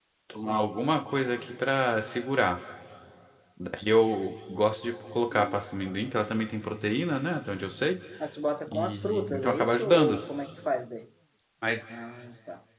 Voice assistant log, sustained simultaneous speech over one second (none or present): present